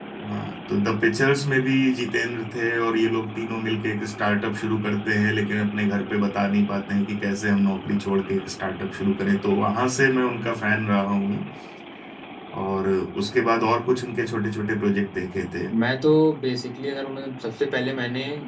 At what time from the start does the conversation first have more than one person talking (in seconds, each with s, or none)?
none